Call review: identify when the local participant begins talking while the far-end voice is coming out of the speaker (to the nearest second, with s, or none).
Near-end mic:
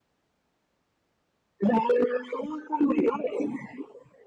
none